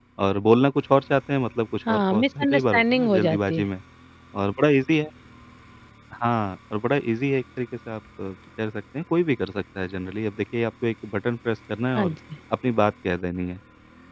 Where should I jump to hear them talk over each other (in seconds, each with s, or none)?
1.9 s